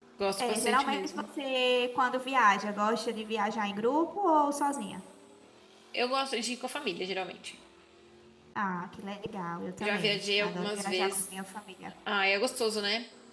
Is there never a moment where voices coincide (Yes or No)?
No